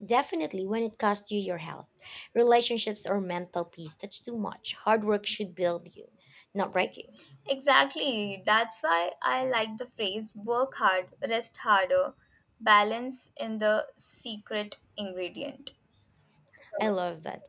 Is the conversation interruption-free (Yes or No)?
Yes